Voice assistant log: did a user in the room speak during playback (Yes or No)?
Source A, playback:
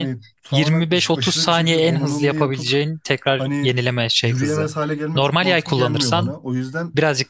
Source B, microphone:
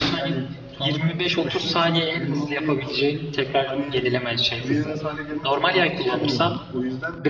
No